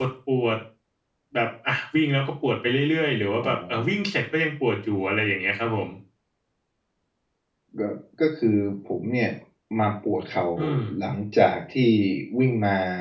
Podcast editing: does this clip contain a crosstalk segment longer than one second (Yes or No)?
No